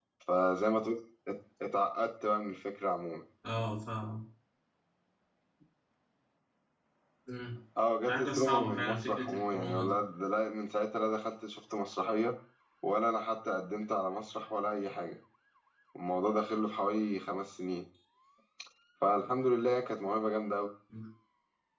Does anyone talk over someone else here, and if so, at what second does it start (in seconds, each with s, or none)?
8.1 s